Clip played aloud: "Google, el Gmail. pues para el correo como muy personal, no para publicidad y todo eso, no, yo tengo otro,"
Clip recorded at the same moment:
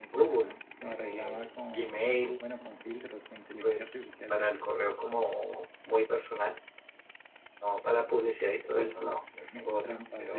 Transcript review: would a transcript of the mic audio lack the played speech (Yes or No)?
No